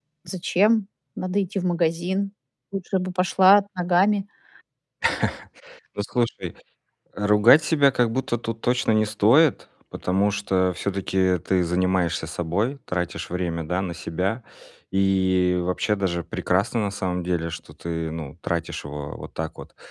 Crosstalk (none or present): none